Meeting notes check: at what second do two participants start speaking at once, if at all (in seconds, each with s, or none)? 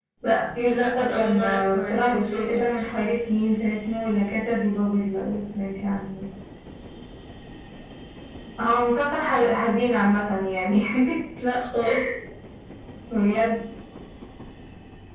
0.6 s